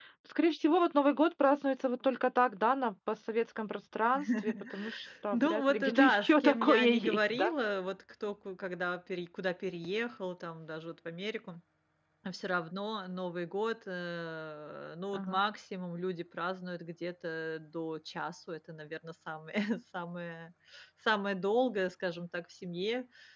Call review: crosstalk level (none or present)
present